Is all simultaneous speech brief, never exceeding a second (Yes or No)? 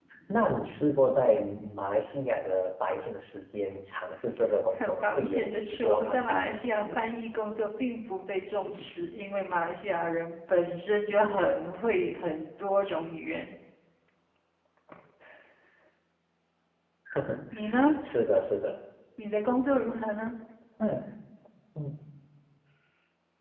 No